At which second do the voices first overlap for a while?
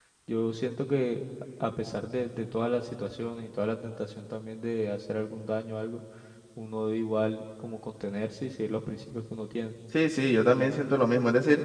none

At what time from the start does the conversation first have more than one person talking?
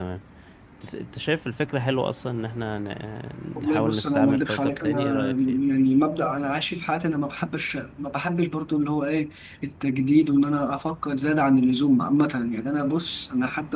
4 s

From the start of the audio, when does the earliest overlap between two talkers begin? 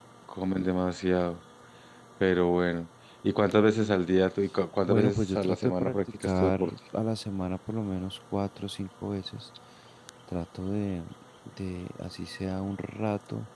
5 s

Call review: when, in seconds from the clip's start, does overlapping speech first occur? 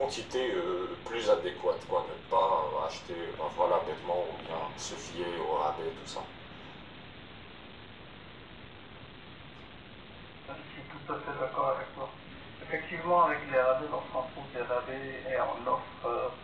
none

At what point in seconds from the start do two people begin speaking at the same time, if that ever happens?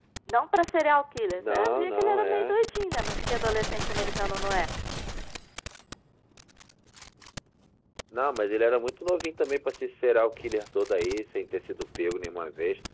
1 s

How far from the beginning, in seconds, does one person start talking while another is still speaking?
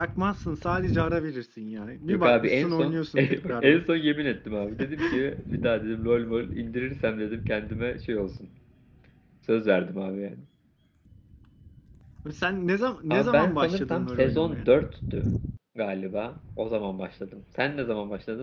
2 s

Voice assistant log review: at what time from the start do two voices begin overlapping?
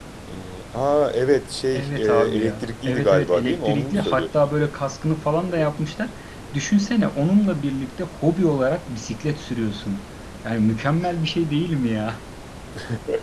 2 s

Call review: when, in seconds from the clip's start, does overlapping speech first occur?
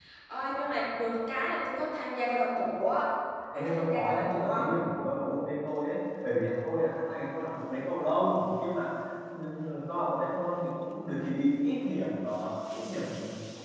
4 s

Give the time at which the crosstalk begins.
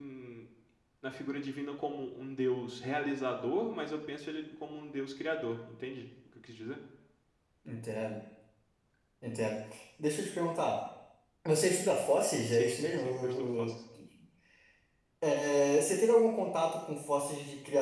12 s

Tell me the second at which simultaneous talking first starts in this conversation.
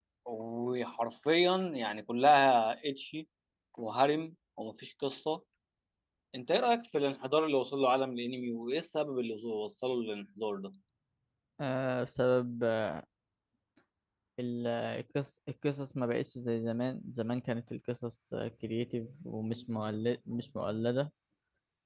none

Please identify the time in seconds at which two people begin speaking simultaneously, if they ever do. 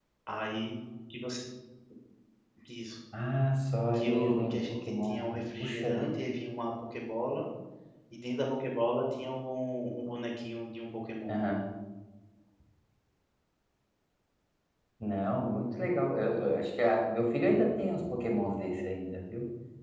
4 s

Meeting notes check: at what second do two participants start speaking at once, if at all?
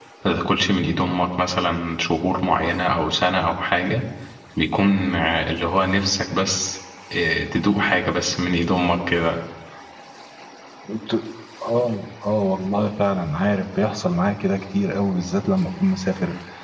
none

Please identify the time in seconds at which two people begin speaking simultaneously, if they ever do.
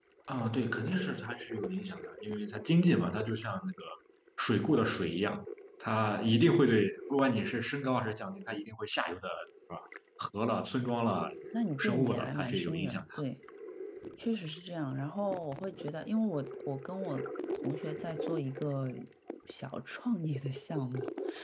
12 s

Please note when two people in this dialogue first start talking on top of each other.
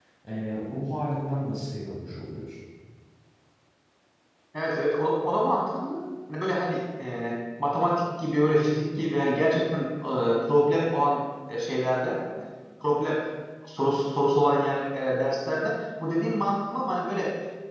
none

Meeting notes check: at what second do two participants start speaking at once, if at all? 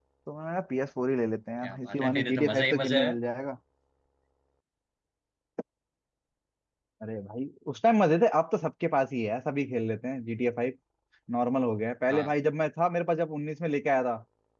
2 s

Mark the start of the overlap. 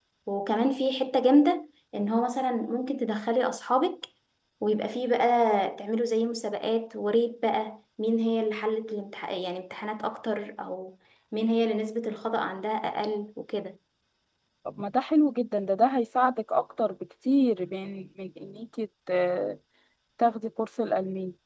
none

